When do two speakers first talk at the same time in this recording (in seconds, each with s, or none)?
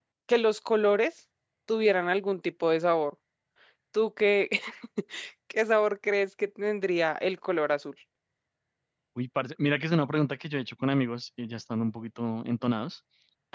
none